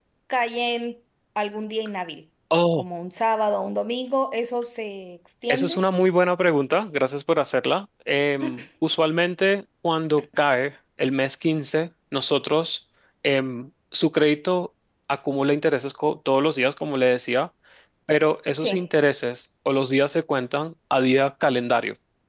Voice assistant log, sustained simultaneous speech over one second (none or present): none